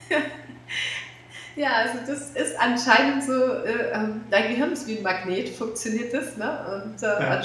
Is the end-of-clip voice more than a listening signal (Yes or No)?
No